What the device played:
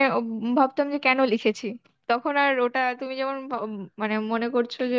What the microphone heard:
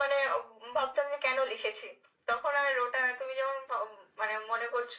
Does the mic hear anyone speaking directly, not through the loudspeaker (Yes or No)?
No